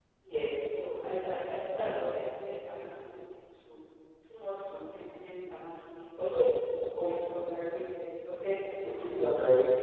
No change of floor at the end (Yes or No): No